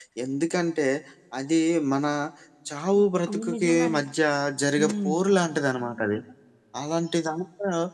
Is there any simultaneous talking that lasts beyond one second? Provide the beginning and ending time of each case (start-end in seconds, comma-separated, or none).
2.8-4.0